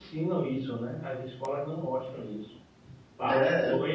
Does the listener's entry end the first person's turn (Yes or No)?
No